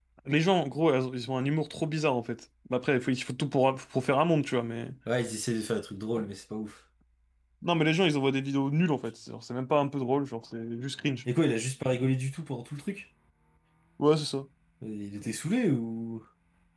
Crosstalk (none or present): none